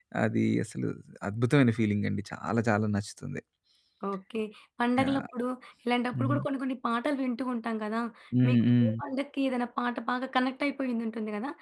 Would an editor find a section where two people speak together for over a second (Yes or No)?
No